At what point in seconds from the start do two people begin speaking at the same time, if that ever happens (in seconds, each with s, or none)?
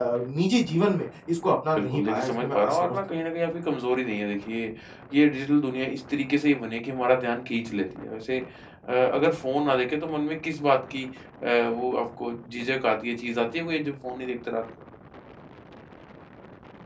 1.8 s